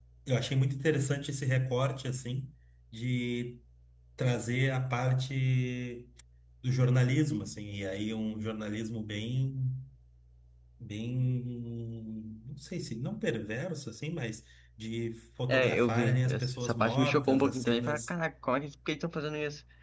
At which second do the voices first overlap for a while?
15.5 s

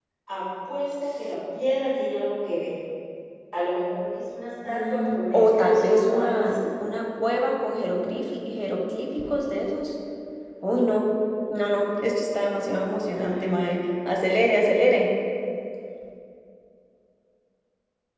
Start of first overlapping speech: 4.7 s

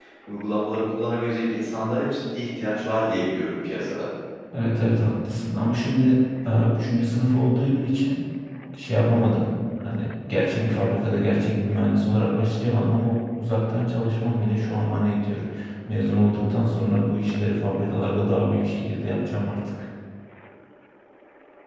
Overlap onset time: none

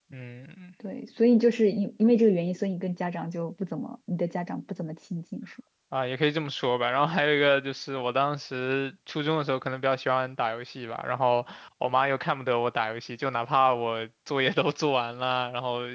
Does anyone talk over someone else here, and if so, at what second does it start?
none

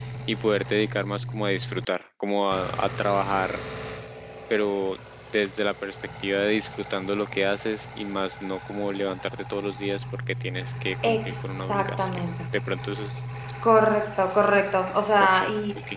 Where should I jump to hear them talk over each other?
11.0 s

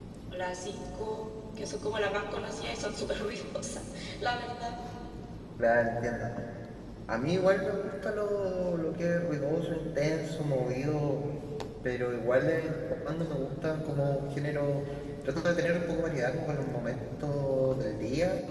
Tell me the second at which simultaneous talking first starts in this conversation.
none

